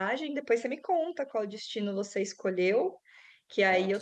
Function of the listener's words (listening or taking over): listening